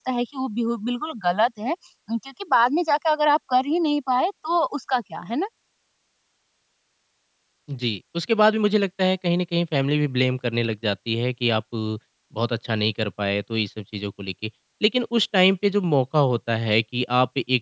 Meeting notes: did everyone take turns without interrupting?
Yes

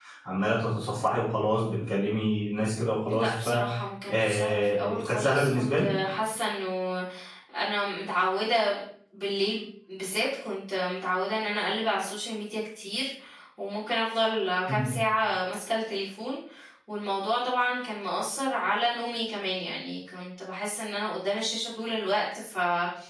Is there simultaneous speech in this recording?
Yes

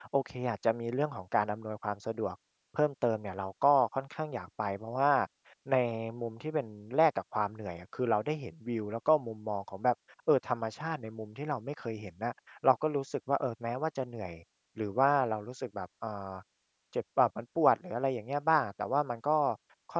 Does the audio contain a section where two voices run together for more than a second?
No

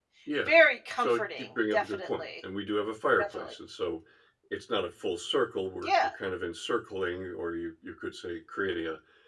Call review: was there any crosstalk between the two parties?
Yes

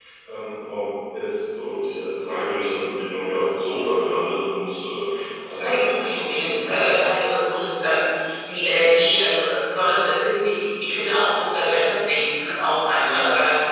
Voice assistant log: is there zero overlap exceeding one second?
No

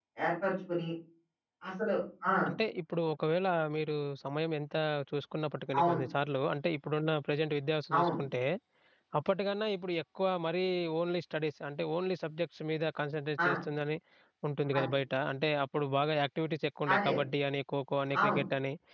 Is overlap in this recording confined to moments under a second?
Yes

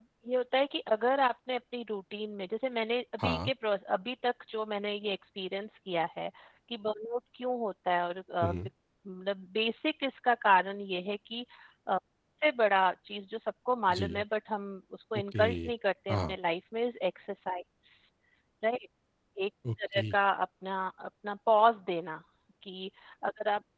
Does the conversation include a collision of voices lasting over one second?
No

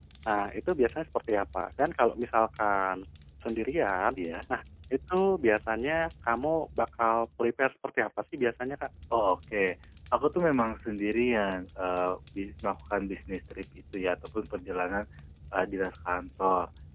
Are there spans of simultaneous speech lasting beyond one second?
No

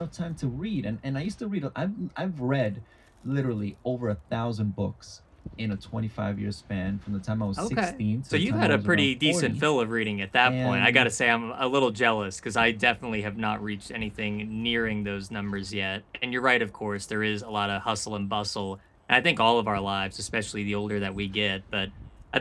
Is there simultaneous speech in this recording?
Yes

